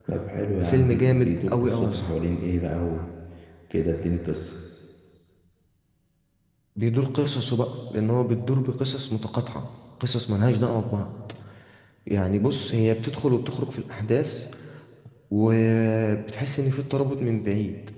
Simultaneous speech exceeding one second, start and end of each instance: 0.6-2.1

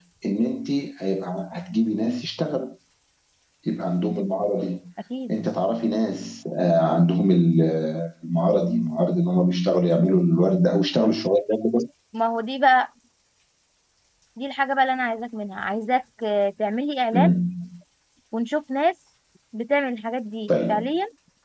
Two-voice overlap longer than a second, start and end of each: none

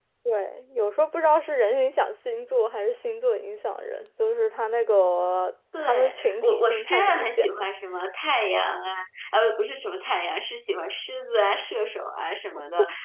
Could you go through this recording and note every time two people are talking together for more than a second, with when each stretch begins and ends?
5.9-7.7

